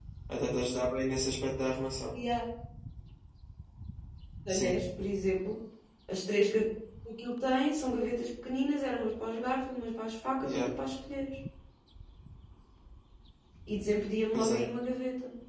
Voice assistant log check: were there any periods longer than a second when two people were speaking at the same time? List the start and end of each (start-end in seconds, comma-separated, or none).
none